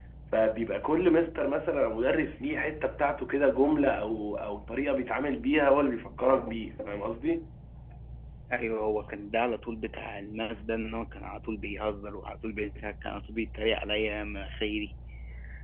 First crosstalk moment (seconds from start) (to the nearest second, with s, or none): none